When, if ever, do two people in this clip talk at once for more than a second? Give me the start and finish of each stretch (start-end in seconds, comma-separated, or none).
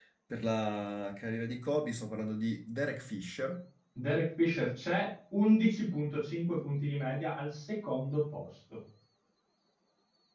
none